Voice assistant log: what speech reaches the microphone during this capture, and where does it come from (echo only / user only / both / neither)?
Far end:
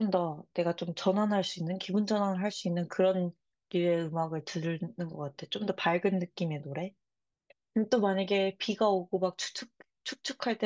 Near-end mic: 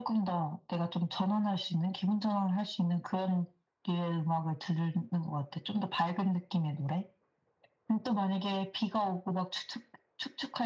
echo only